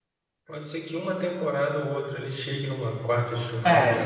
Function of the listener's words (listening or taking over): listening